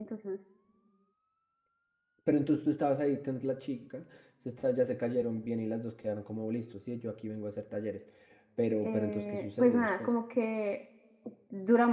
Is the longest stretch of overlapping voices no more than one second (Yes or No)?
No